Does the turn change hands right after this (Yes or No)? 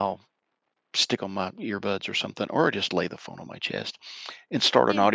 No